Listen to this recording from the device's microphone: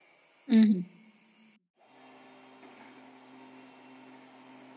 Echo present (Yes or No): No